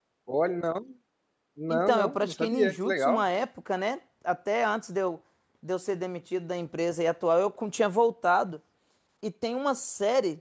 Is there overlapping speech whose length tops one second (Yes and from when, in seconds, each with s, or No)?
Yes, from 1.7 s